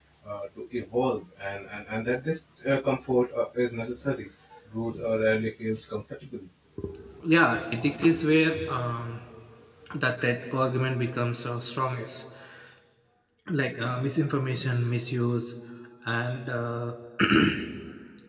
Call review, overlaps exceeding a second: none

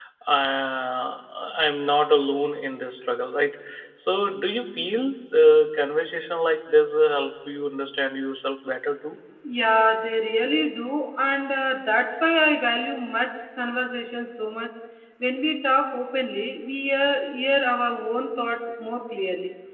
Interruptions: none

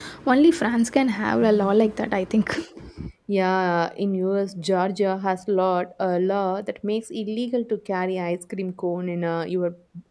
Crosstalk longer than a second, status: none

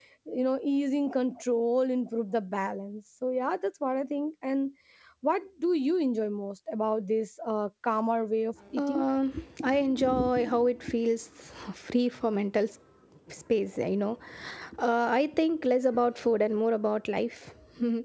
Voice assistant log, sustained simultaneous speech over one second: none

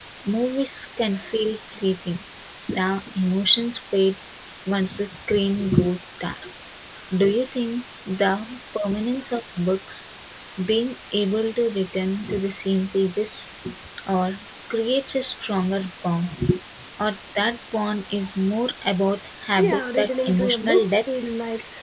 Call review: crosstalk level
present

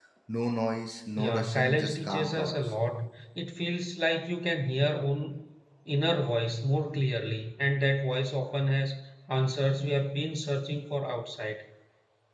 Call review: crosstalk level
present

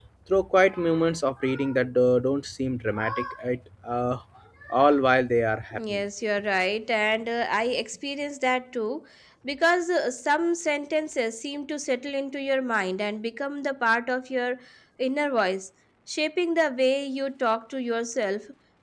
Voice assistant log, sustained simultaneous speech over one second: none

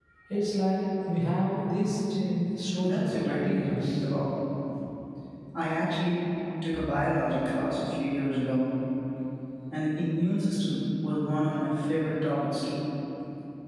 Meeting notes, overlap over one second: present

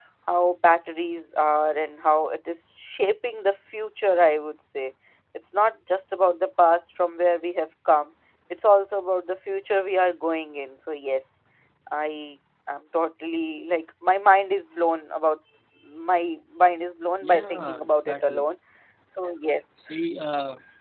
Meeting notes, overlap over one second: present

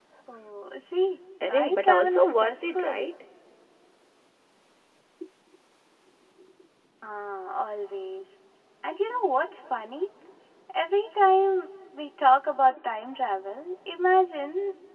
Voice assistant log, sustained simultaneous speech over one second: present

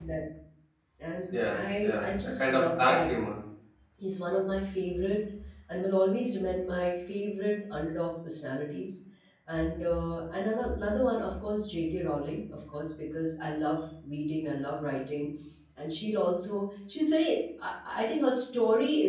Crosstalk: present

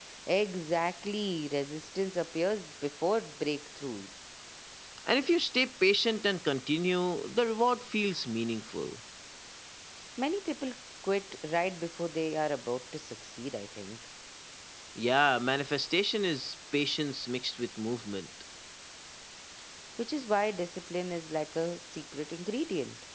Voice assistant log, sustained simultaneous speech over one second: none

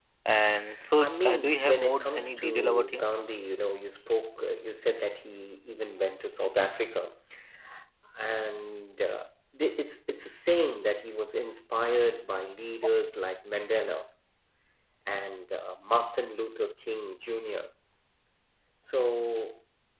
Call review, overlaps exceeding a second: present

